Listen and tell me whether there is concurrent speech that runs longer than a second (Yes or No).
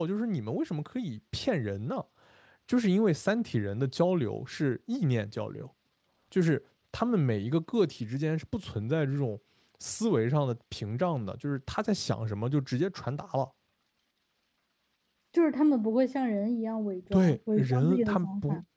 Yes